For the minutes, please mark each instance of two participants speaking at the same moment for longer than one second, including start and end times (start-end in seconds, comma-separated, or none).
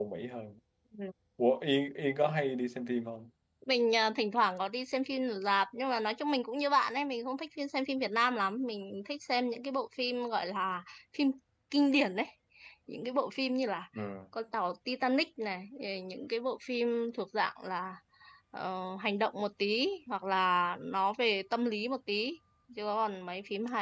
none